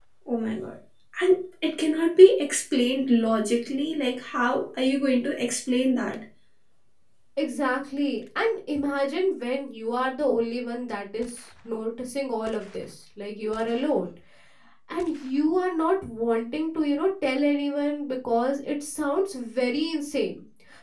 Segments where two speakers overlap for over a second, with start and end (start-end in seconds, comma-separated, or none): none